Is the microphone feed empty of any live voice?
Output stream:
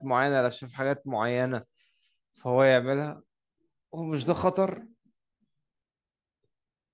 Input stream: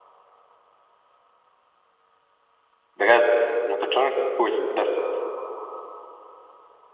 No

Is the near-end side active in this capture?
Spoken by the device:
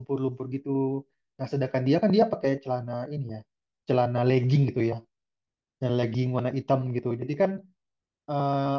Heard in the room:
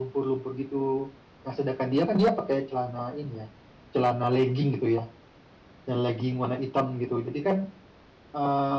No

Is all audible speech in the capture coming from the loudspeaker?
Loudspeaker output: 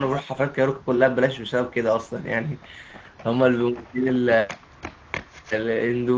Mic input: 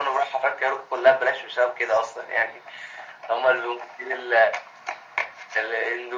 Yes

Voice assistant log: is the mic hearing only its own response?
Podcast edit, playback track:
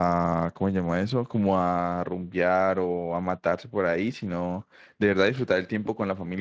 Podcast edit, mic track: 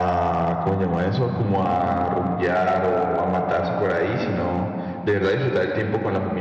Yes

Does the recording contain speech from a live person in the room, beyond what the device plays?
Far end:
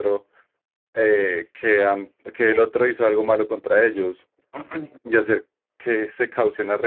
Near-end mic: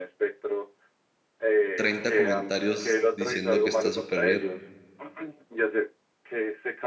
Yes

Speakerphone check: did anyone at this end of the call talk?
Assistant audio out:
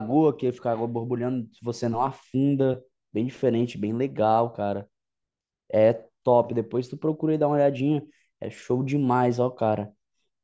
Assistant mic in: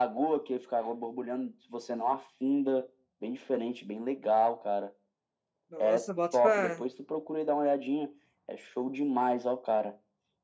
Yes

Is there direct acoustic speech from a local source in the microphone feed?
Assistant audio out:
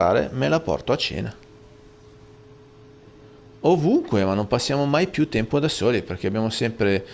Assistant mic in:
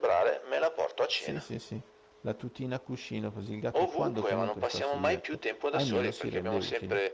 Yes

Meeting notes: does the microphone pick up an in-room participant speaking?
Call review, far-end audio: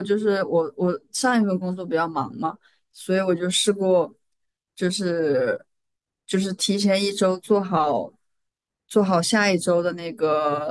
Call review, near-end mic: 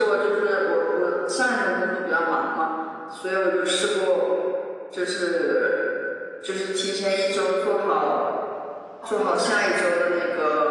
Yes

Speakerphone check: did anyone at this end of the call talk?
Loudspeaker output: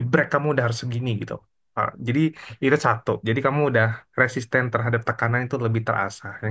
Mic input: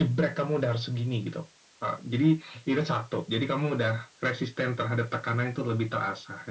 No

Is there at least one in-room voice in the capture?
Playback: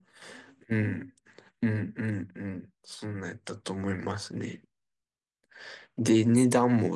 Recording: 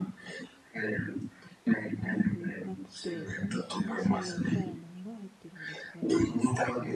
Yes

